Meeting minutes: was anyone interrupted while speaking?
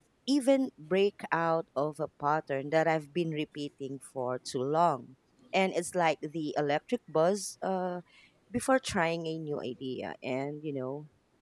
No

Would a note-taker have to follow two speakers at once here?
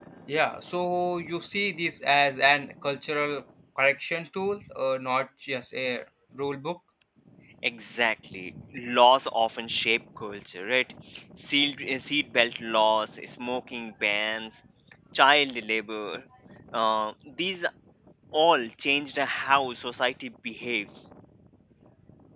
No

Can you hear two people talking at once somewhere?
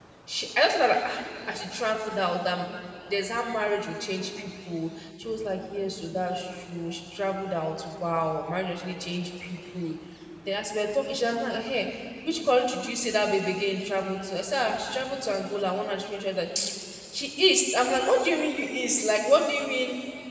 No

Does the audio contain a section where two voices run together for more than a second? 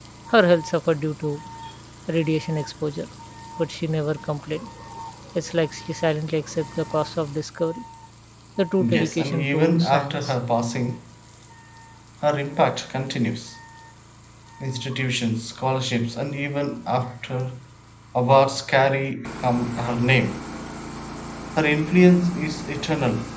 Yes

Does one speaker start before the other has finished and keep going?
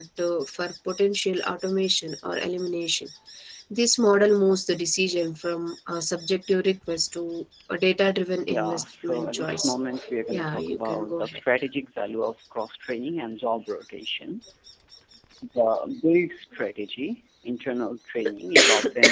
Yes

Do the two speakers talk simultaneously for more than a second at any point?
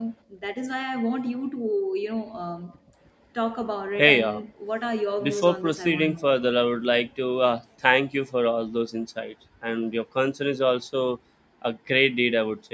Yes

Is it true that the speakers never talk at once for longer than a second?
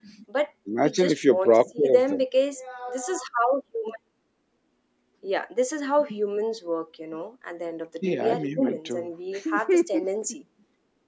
No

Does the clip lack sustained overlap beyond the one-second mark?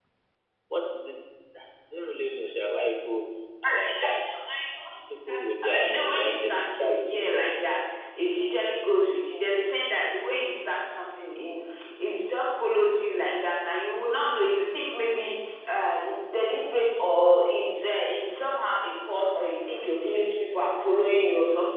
No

